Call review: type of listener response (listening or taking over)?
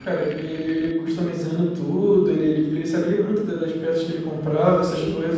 taking over